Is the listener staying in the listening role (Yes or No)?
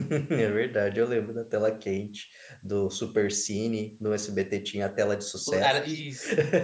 No